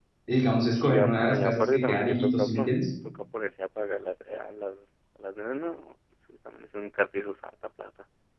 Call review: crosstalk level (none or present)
present